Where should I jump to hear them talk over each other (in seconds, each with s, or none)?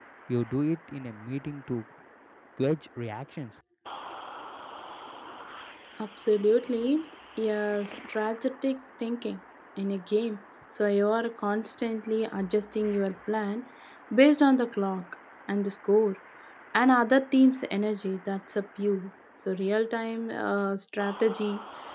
none